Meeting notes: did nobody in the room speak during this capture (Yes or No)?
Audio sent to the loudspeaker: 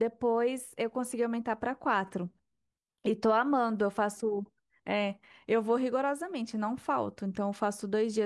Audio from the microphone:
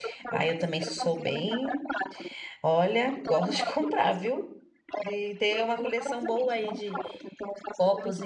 No